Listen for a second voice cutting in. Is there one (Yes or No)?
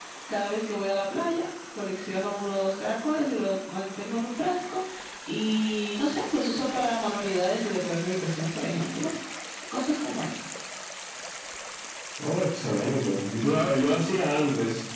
No